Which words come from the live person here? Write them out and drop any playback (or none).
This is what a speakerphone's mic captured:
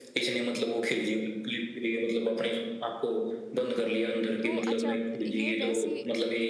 तो अच्छा ये वैसी